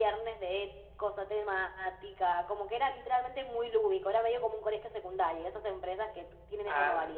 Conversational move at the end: taking over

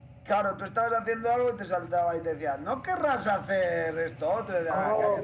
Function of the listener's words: taking over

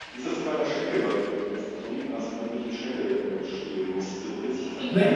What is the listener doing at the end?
listening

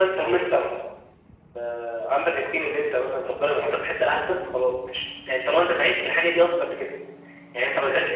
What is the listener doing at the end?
listening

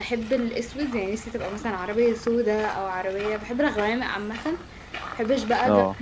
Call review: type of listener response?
listening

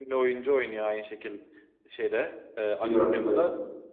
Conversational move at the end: listening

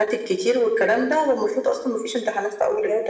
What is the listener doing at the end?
taking over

